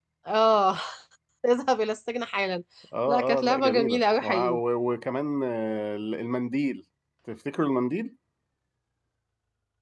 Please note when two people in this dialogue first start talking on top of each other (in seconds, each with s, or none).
3.1 s